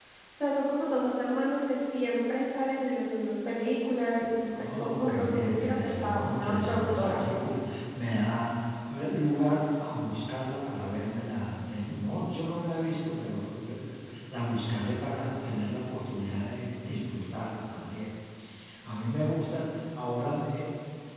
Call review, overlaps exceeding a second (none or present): present